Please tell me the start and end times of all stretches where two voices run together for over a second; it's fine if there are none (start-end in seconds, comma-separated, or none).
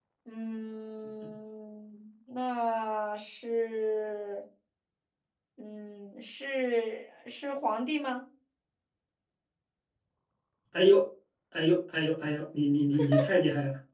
none